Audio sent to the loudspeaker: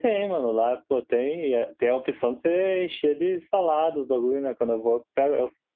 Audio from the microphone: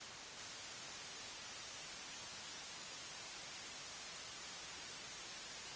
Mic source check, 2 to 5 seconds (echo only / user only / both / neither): neither